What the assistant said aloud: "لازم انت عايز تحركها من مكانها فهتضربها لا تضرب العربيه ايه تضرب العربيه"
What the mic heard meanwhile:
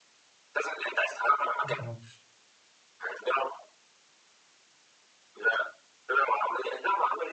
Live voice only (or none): معرفش